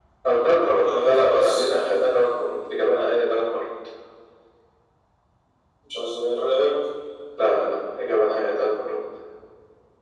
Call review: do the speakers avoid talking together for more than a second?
No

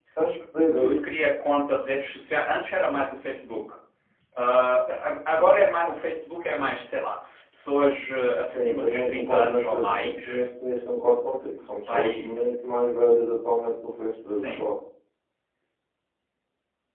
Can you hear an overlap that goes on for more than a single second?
Yes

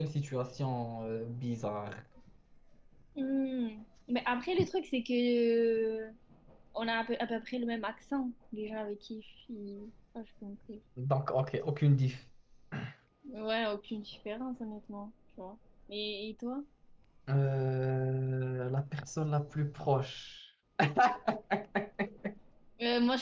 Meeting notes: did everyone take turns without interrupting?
Yes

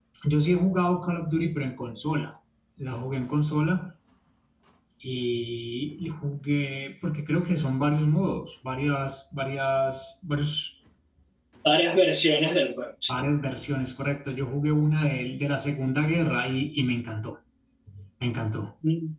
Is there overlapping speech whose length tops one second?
No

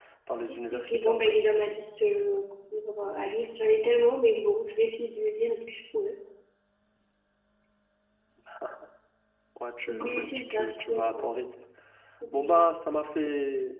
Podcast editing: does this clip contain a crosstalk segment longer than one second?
Yes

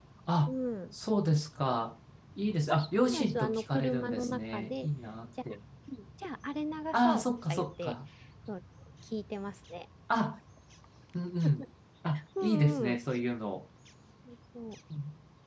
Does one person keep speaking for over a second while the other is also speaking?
Yes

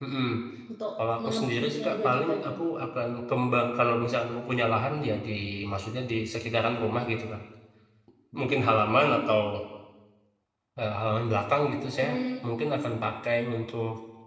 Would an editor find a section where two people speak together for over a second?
Yes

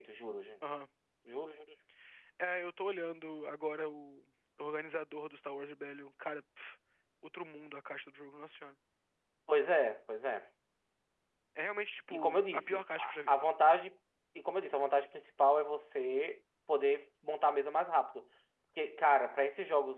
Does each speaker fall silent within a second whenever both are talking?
No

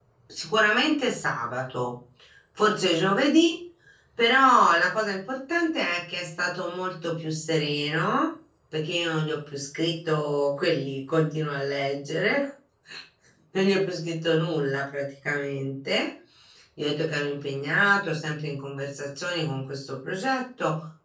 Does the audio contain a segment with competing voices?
No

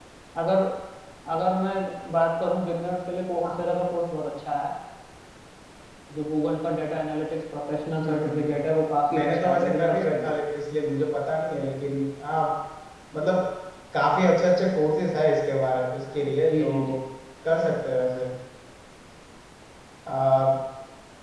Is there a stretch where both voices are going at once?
Yes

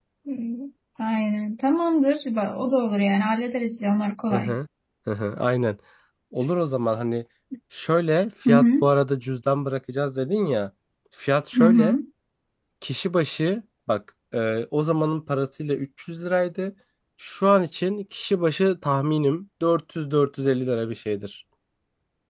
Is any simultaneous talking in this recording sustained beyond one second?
No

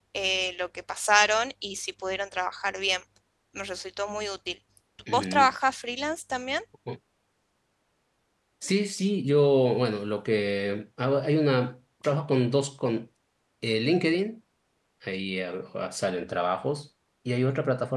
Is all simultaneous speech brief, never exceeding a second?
Yes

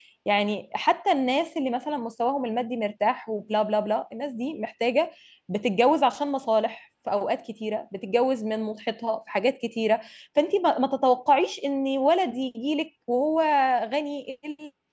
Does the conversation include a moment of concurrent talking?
No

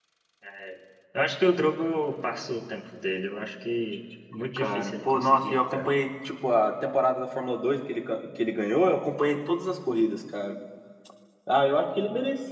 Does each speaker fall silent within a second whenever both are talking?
No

